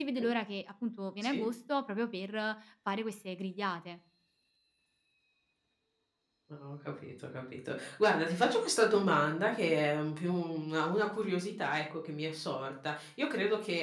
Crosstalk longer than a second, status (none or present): none